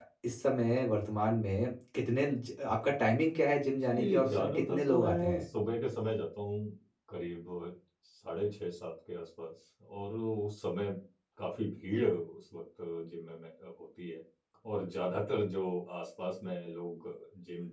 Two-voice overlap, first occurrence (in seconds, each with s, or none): 3.9 s